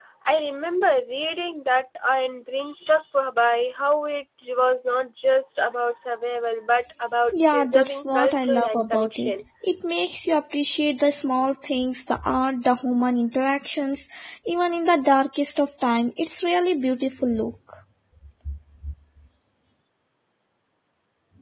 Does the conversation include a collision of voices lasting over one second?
Yes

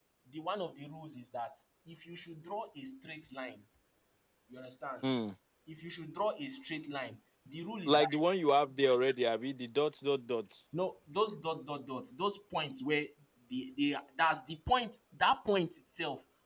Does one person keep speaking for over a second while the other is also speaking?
No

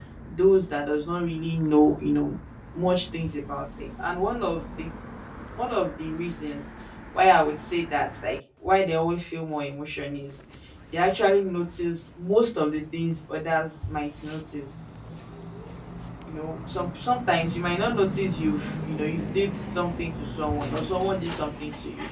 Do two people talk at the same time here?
No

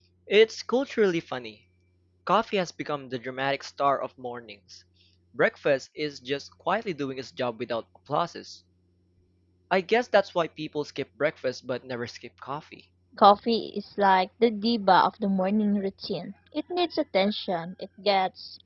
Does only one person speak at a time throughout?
Yes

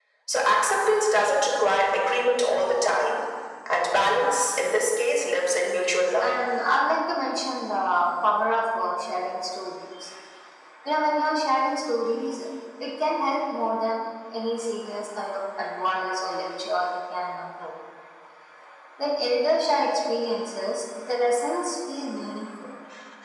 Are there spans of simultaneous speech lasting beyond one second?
No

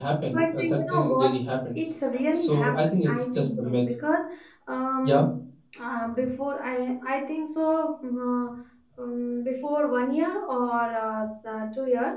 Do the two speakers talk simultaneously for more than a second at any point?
Yes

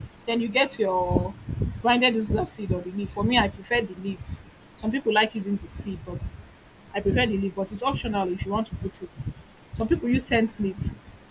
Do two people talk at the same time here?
No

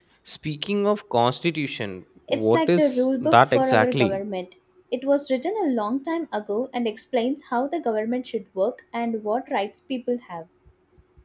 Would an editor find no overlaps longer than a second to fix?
No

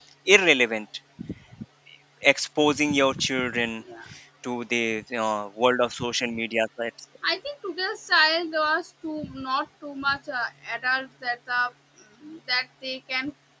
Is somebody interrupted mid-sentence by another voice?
No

